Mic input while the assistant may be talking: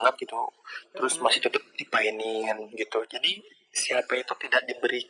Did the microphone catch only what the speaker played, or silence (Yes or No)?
No